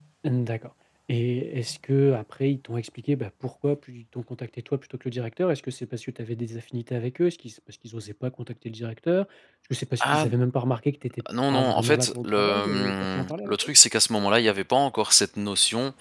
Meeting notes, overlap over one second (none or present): present